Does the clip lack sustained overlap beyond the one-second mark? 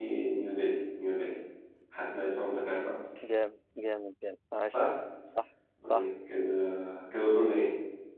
Yes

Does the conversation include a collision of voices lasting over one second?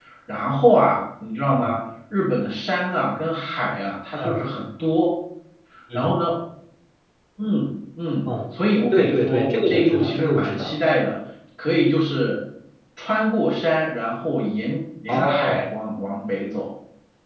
Yes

